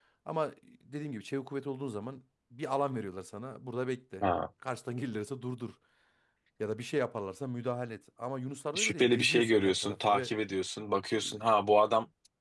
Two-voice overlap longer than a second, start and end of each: 8.8-10.3

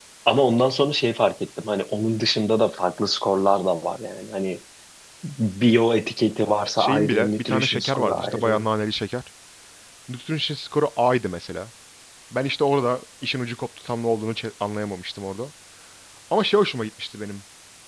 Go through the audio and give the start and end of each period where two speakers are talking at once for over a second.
6.8-8.7

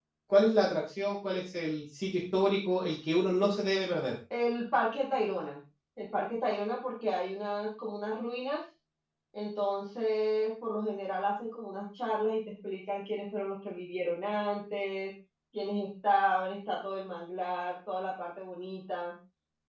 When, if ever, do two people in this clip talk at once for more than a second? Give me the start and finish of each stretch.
none

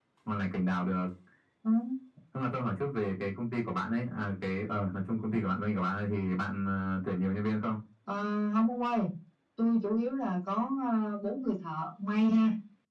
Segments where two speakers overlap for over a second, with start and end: none

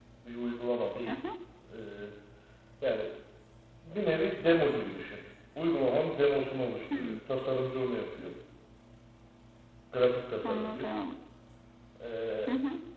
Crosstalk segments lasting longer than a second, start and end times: none

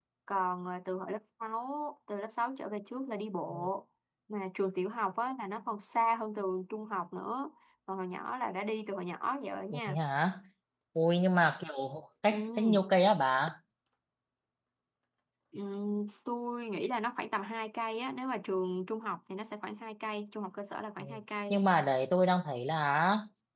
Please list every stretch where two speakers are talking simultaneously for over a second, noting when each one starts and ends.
none

